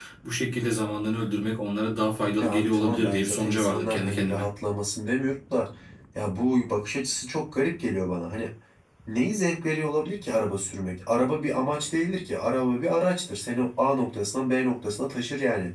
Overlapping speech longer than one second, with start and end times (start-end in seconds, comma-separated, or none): 2.4-4.5